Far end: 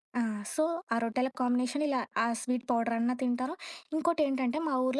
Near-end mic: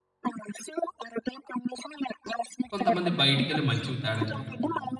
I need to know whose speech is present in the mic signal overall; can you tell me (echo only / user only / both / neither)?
both